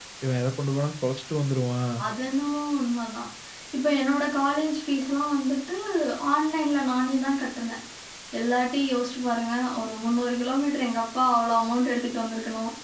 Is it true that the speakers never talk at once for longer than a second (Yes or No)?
Yes